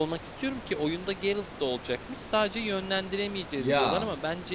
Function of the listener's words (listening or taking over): listening